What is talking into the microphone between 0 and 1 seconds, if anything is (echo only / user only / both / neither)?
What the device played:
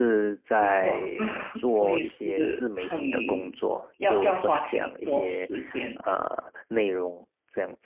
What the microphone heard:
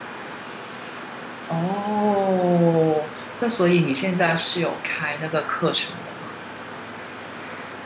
neither